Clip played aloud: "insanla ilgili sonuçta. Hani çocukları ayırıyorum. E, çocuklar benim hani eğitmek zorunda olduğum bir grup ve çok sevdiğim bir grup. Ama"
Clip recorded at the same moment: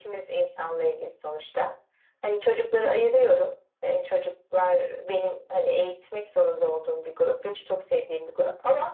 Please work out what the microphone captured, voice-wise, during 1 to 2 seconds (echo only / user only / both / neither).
echo only